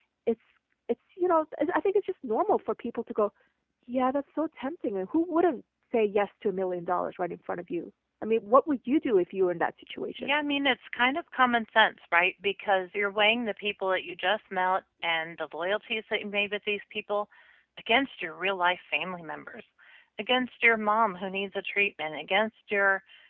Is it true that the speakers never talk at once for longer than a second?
Yes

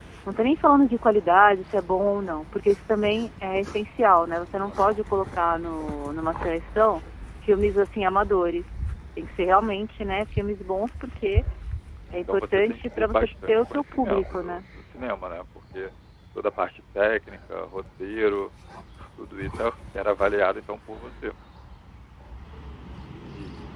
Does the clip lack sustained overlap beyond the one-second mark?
No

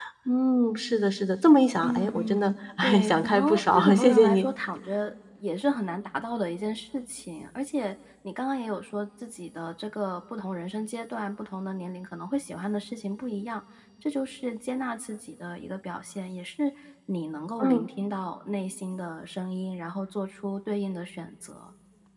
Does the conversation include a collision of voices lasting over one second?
Yes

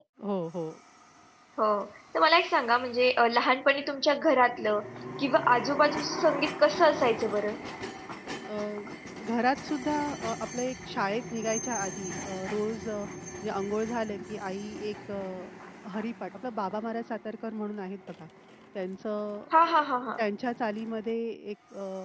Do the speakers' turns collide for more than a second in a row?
No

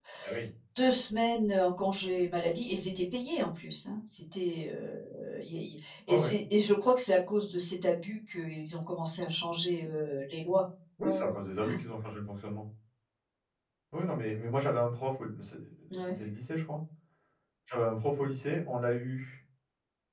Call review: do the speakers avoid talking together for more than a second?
Yes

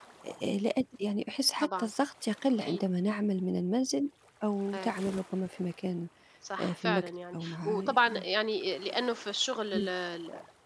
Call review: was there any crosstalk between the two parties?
Yes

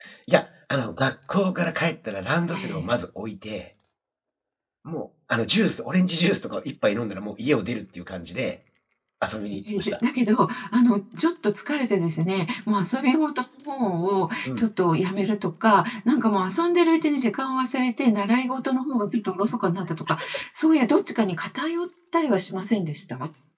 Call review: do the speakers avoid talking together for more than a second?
Yes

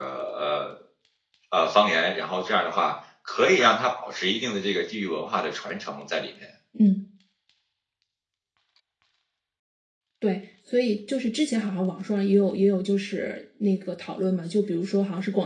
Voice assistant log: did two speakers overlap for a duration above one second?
No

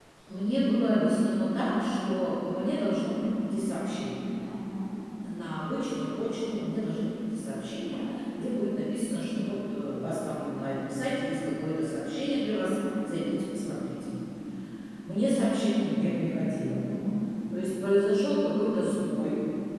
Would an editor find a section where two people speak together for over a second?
No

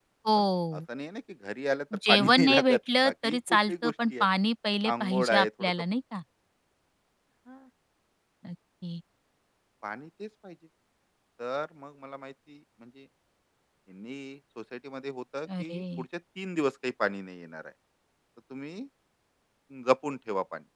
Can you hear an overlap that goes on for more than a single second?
Yes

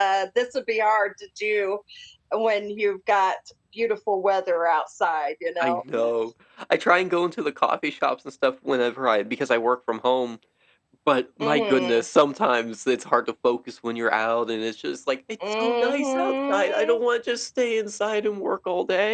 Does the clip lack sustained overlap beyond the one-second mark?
No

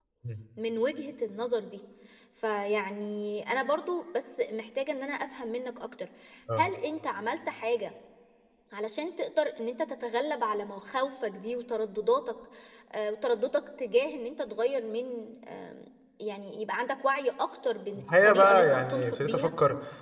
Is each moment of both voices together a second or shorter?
No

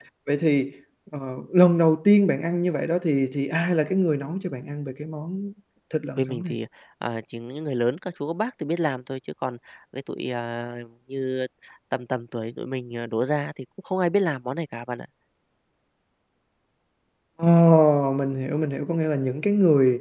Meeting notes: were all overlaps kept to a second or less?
Yes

